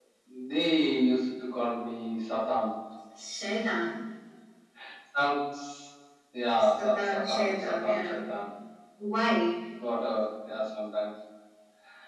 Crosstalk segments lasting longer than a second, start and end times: 6.8-8.2

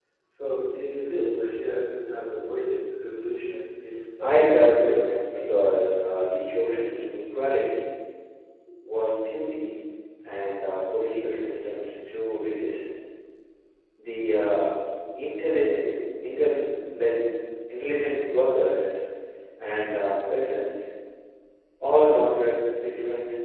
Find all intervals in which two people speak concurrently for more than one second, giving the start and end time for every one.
4.2-5.4

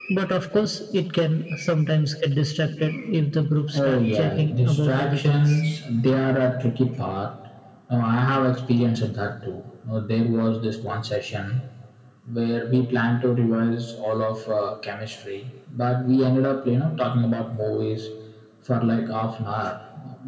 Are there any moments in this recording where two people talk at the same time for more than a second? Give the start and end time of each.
3.7-5.5

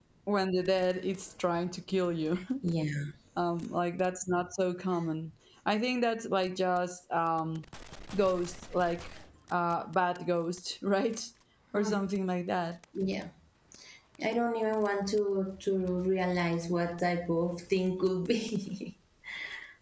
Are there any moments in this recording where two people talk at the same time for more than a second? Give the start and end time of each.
none

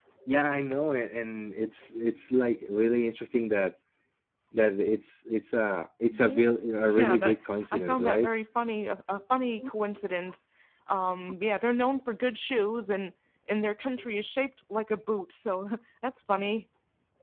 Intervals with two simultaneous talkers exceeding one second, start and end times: 6.9-8.3

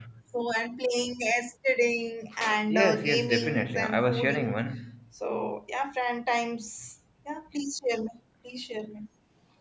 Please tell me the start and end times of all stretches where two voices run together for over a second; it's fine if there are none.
2.7-4.6

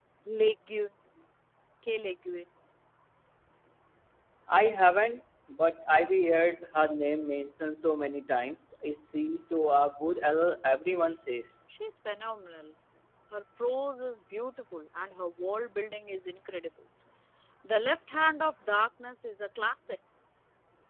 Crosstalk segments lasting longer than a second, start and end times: none

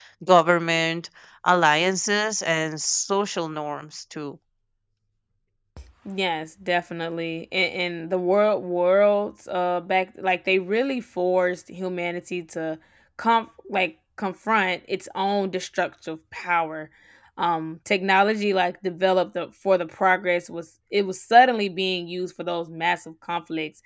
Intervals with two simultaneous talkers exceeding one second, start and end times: none

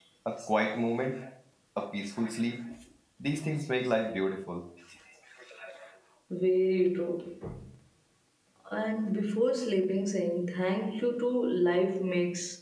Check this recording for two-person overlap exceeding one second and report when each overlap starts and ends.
none

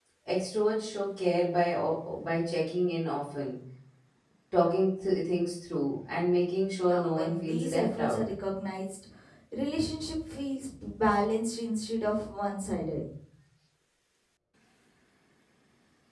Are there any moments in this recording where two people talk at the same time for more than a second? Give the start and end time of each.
6.9-8.2

